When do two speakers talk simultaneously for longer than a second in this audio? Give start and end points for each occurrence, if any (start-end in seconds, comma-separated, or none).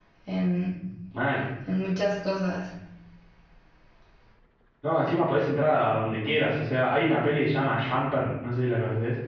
none